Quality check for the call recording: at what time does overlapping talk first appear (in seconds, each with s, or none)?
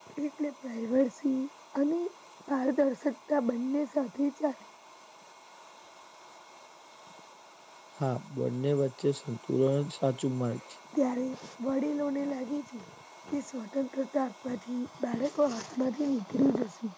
none